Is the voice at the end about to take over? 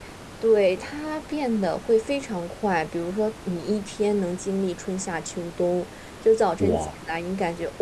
No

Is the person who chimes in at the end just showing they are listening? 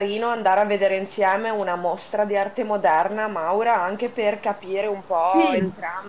Yes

